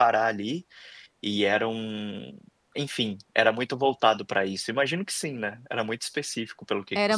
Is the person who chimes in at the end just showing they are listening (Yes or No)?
No